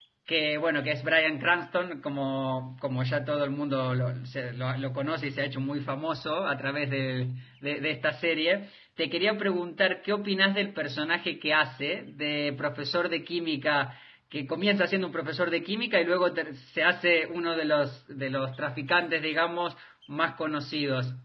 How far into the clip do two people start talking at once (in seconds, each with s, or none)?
none